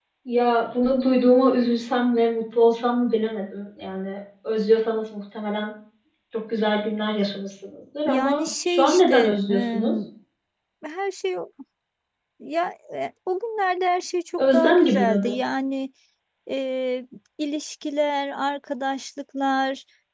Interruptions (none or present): present